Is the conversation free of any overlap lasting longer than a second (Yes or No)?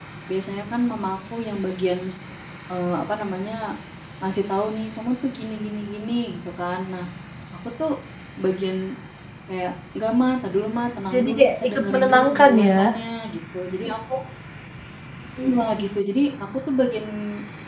No